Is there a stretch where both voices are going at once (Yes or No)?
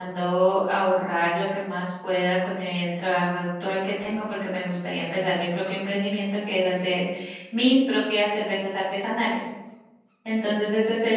No